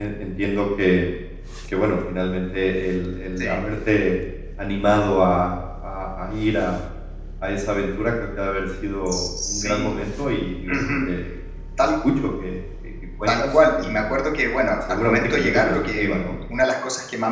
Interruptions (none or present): present